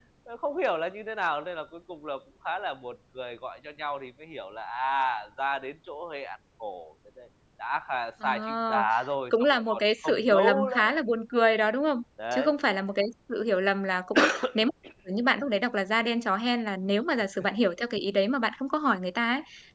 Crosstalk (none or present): present